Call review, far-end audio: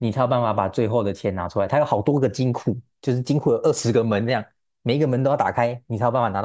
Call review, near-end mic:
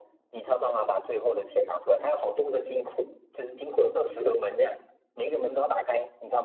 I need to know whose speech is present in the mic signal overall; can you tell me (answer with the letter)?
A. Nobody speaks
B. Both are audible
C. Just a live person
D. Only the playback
D